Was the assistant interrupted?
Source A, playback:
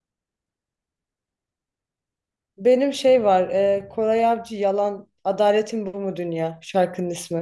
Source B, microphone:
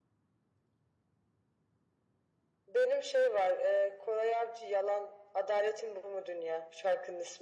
No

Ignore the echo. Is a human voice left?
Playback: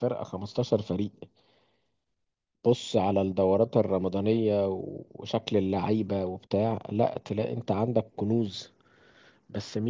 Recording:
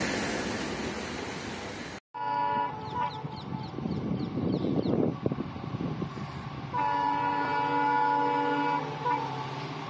No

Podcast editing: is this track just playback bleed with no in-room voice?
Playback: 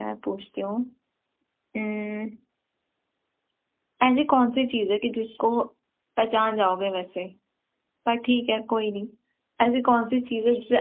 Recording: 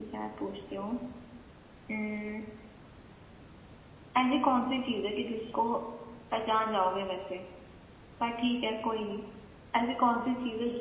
Yes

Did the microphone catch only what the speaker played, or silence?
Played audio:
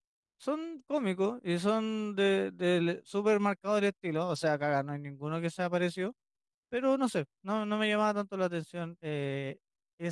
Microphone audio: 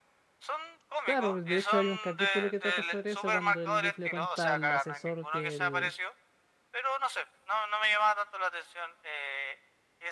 No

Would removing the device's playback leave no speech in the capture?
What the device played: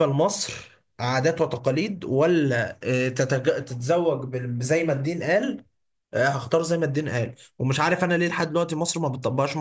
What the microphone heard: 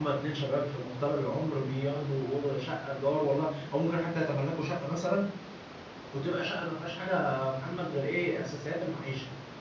No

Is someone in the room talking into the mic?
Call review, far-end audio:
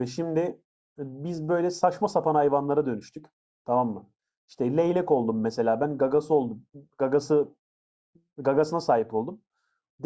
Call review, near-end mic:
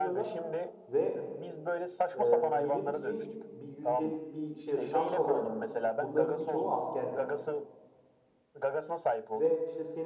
Yes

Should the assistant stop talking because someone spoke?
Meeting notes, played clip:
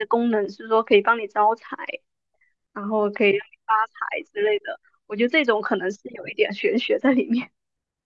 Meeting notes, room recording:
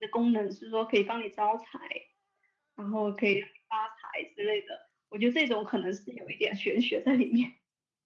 No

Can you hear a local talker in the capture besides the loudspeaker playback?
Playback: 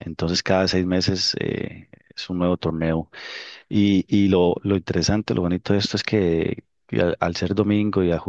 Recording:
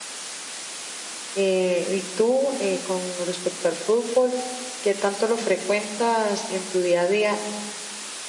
Yes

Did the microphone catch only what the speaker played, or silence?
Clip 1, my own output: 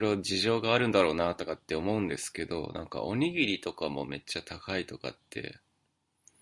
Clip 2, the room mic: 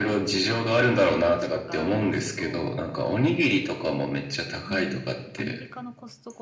No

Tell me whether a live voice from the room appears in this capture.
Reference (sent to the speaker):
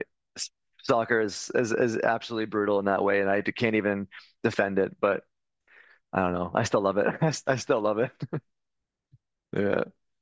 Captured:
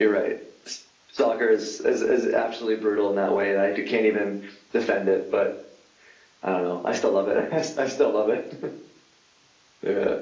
No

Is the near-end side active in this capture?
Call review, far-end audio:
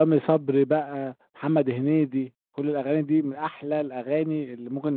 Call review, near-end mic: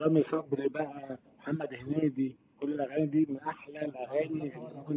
Yes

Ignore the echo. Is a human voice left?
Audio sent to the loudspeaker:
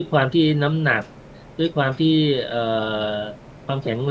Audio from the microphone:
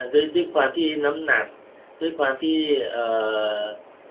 No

